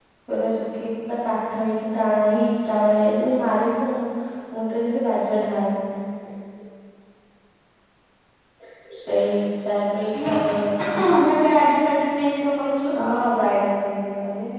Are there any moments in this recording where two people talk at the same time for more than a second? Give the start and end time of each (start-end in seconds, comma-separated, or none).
none